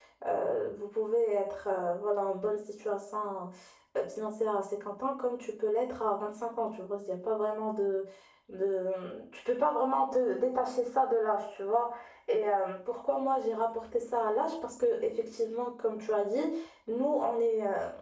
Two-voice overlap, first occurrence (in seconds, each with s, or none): none